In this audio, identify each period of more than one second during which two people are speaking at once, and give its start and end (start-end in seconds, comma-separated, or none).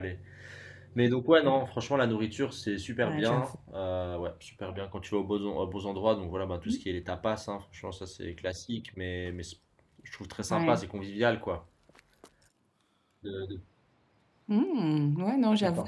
none